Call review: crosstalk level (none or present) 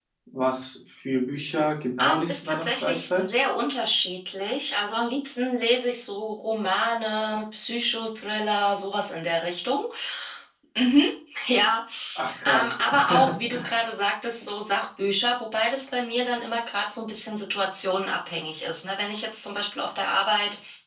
present